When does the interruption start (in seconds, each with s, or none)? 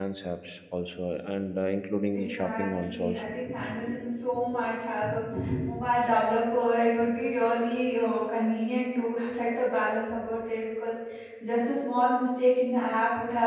2.1 s